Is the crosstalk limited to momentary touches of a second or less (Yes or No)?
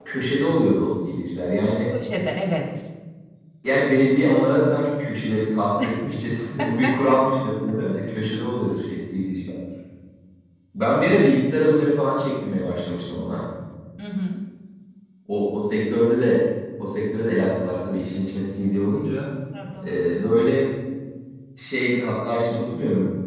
Yes